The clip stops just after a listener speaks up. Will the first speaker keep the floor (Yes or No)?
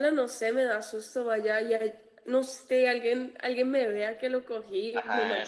No